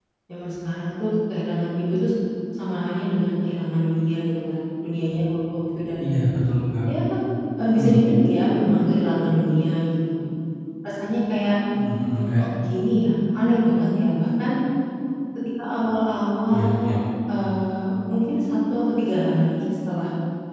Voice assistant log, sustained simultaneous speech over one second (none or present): none